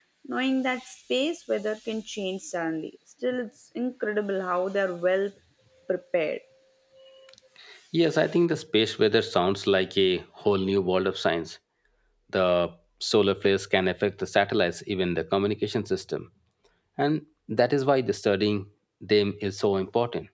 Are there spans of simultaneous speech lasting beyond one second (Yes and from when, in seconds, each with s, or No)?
No